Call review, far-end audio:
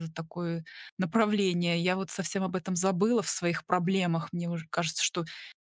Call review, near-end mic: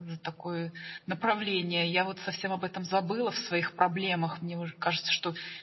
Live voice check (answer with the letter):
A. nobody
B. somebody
A